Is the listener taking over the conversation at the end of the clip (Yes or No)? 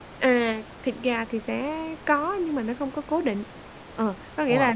No